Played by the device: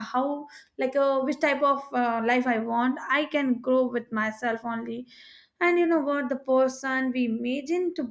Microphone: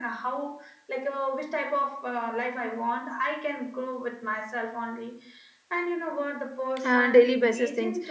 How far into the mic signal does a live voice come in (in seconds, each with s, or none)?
6.8 s